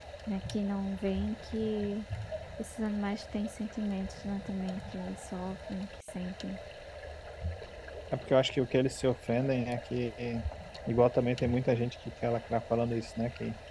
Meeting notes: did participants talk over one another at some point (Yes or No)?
No